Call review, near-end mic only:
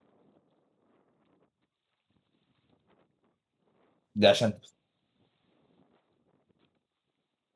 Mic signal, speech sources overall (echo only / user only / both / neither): user only